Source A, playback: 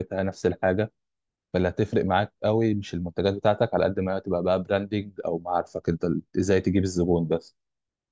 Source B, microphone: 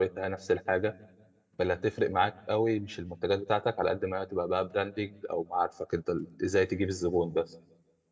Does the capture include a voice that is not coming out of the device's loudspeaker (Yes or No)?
No